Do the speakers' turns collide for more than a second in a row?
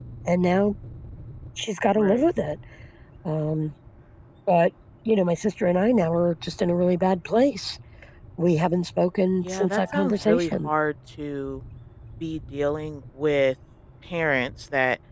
Yes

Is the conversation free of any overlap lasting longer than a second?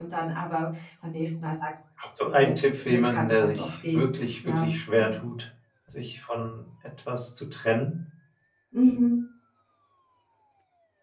No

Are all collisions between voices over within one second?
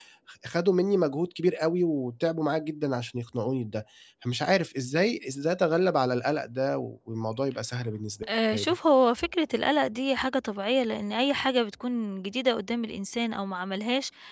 Yes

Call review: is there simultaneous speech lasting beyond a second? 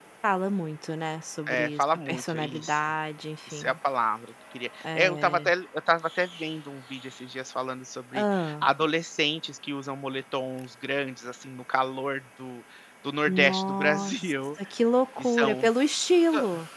Yes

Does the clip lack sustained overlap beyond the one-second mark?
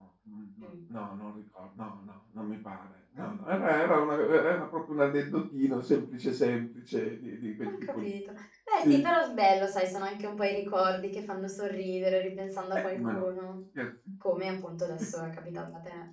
Yes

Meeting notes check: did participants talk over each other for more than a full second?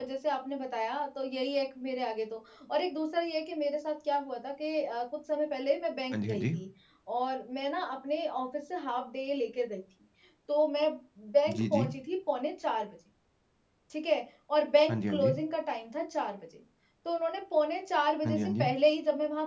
No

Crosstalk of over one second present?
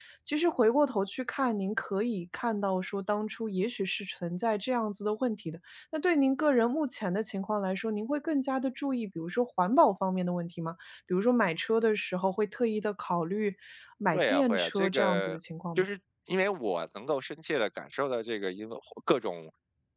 Yes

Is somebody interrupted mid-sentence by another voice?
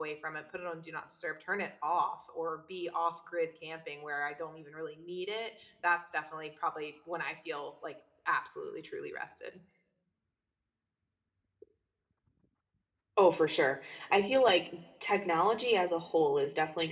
No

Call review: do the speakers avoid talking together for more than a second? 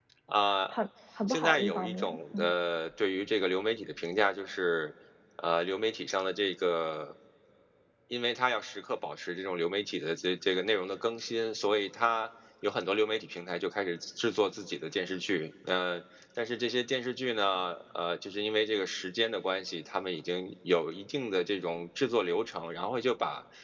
No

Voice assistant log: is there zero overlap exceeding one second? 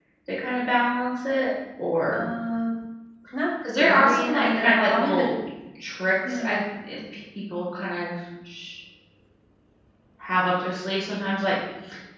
No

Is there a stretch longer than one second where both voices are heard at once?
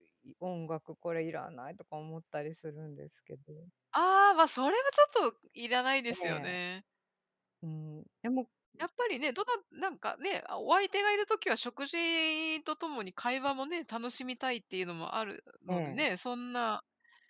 No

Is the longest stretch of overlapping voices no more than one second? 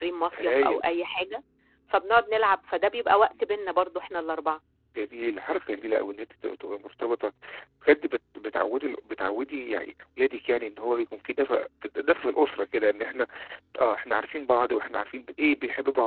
Yes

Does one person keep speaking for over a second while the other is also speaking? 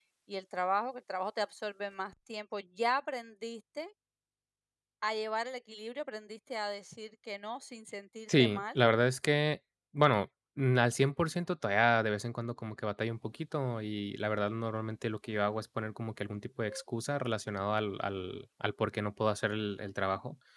No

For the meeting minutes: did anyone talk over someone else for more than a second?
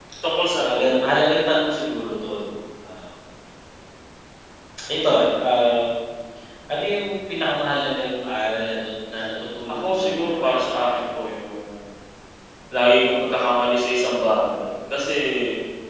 Yes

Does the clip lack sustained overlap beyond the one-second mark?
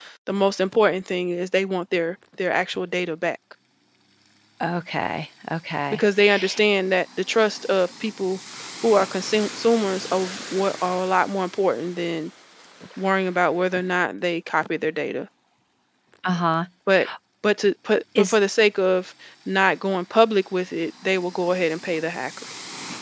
Yes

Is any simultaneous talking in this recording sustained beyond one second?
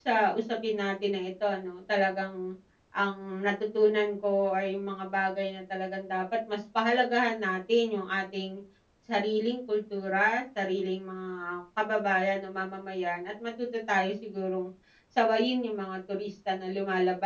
No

